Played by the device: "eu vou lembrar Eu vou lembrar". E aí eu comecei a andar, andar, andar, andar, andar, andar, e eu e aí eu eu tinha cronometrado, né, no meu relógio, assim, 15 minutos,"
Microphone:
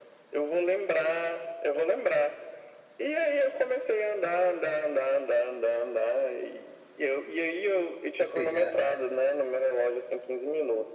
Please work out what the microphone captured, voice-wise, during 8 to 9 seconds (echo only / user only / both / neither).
both